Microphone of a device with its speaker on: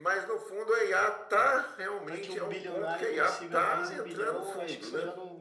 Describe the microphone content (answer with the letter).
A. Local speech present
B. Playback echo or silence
A